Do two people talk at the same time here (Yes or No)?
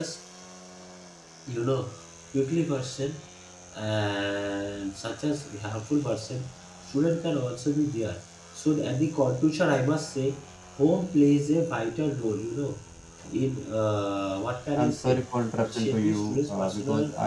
Yes